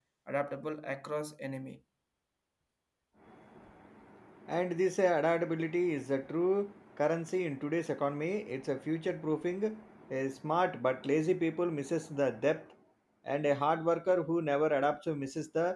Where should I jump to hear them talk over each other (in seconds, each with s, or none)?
none